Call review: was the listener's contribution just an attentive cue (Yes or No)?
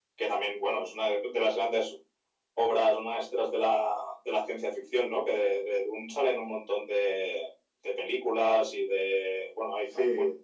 Yes